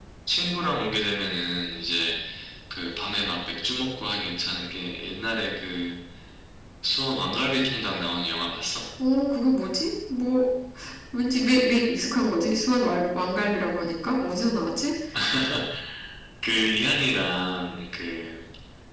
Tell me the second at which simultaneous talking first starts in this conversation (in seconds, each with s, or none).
none